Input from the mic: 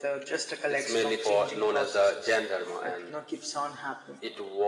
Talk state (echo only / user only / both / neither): echo only